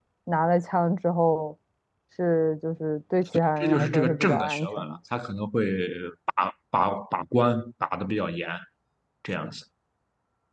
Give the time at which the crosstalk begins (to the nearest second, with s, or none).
4 s